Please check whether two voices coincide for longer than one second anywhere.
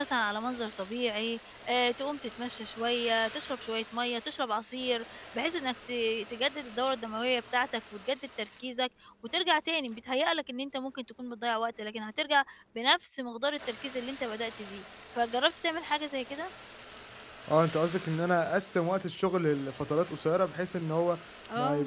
No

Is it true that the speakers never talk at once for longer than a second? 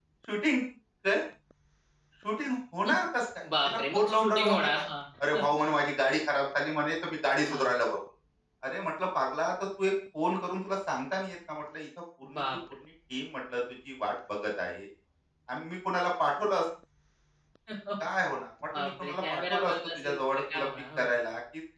No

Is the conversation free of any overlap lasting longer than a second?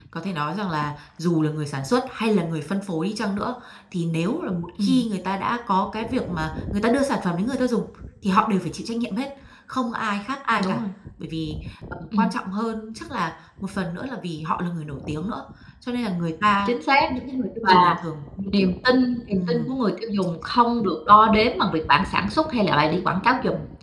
Yes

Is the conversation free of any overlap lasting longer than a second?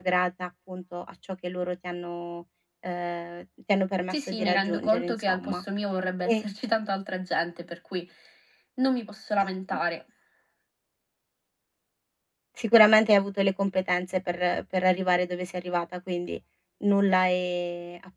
No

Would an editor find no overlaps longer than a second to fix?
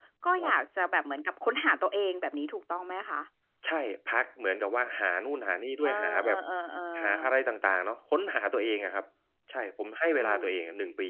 Yes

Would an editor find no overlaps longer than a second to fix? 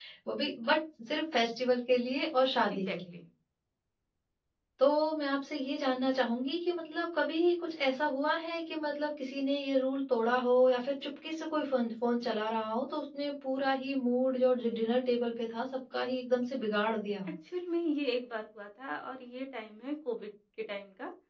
Yes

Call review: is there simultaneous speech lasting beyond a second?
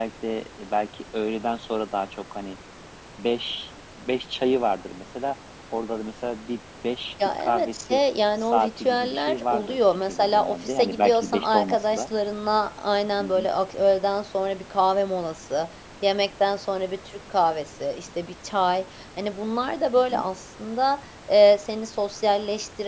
Yes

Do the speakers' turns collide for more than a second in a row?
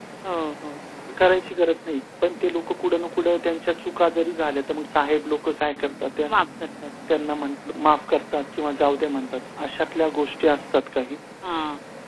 No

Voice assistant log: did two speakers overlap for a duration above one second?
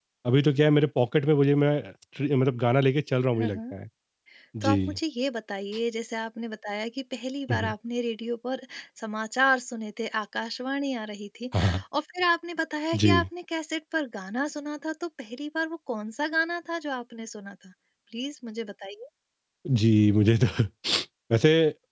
No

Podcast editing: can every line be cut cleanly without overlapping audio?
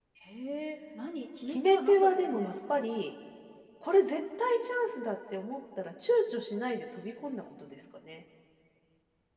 No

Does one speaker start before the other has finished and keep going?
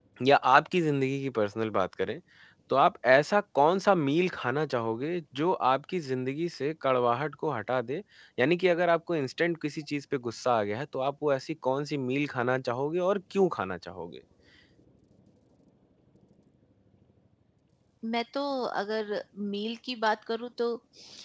No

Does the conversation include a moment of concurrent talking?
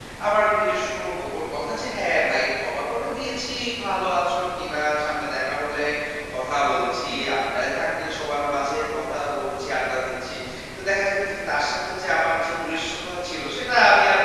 No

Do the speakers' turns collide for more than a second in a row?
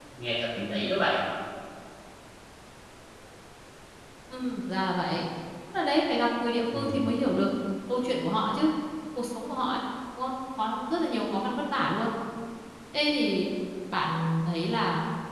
No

